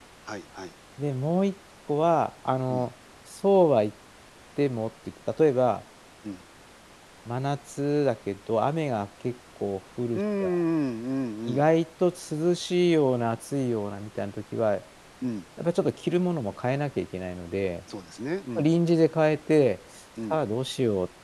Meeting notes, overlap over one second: none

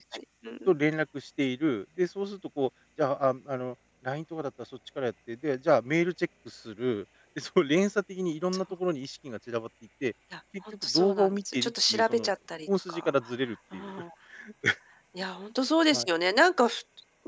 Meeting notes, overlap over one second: present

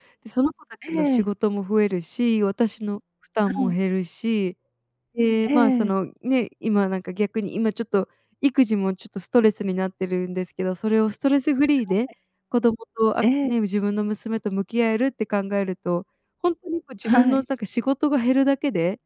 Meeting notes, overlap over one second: none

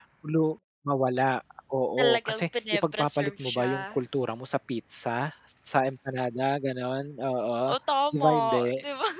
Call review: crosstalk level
present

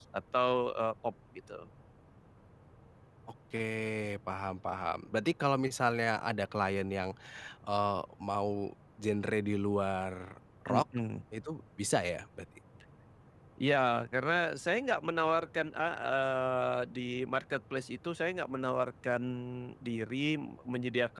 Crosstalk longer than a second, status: none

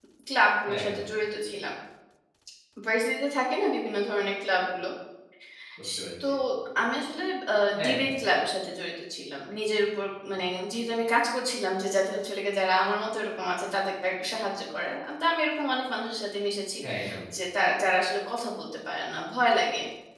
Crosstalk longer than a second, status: none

